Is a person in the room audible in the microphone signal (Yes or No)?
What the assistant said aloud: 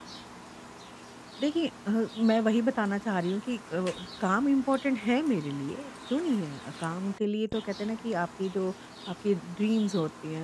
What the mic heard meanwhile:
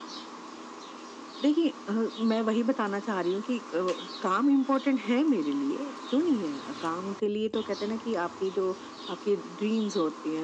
No